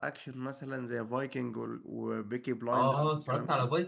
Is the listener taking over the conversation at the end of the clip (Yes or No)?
Yes